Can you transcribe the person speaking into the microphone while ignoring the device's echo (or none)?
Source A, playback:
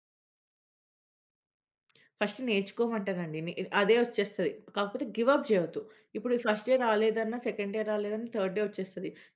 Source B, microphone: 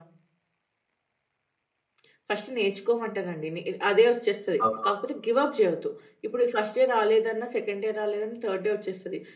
అవునవును.